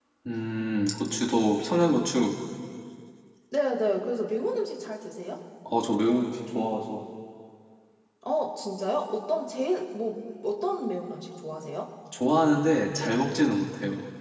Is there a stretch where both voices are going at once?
No

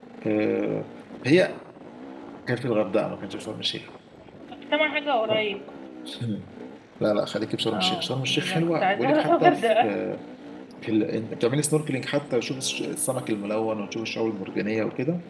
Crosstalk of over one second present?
Yes, from 7.7 s

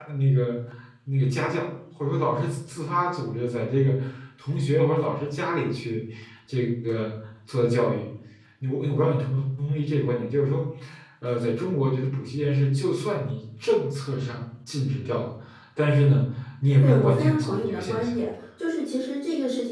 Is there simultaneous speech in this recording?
Yes, from 16.8 s

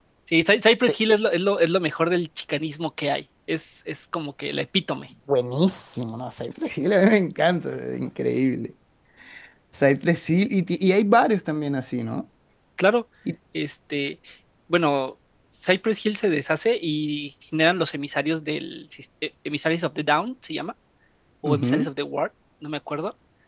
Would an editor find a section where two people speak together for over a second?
No

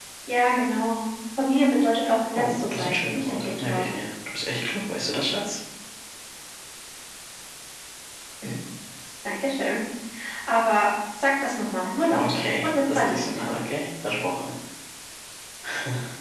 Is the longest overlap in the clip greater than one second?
Yes, from 2.4 s

